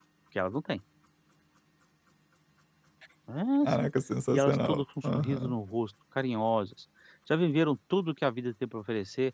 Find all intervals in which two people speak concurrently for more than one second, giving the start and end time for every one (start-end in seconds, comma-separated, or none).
4.3-5.6